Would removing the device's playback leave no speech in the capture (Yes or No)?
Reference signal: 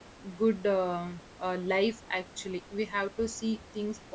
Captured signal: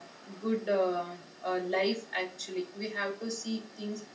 Yes